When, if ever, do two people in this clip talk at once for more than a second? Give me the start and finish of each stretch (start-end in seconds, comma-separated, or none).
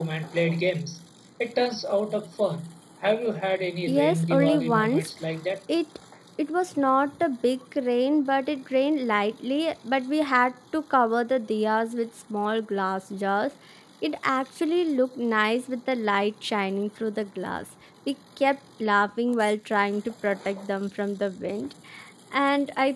3.9-5.1